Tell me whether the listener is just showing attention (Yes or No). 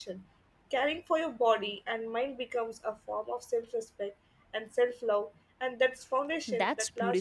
No